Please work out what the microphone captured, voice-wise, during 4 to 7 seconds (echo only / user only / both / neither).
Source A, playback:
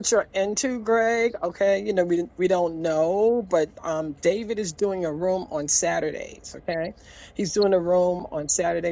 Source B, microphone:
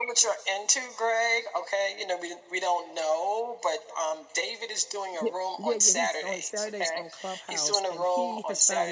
both